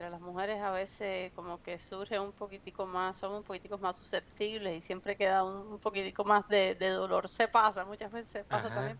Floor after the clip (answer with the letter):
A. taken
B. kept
B